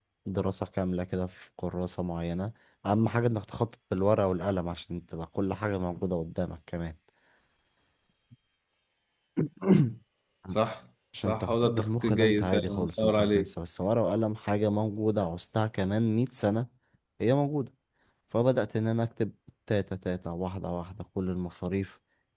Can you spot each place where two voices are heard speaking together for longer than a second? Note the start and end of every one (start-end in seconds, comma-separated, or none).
11.2-13.5